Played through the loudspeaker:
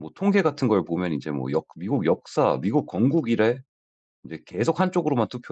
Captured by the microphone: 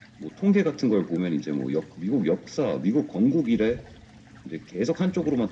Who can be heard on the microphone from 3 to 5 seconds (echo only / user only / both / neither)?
echo only